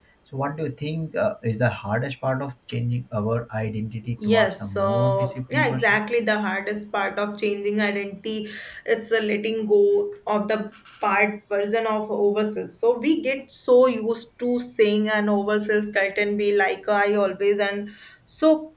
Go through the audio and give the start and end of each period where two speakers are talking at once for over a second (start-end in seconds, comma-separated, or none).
4.2-6.0